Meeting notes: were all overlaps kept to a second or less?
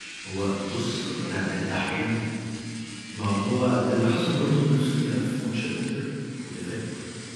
No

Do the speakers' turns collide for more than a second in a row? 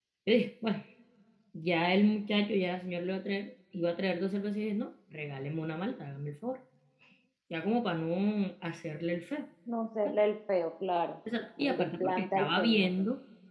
Yes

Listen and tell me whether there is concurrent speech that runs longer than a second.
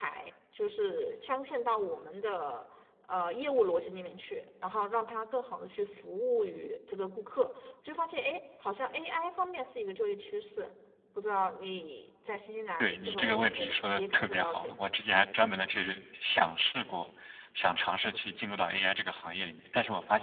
Yes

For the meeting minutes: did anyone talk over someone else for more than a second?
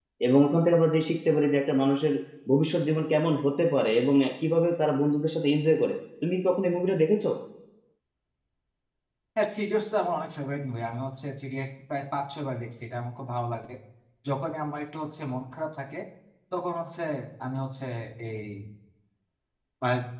No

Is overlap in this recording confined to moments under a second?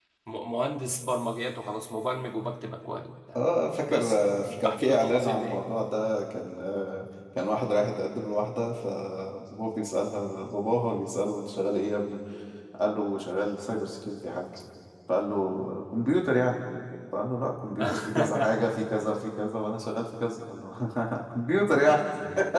No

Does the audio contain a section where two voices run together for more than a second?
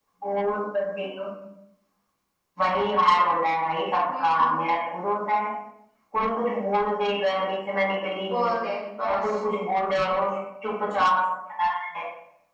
No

